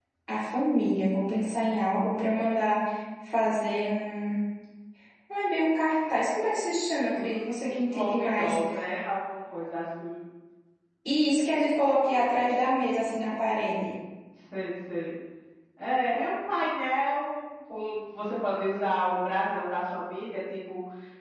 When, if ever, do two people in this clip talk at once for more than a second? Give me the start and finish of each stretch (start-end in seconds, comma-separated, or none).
7.1-8.6